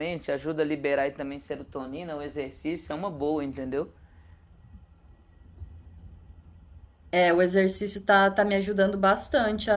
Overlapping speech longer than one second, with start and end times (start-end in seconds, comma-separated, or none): none